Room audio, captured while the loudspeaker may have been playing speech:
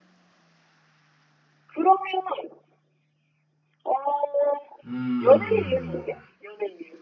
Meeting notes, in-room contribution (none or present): present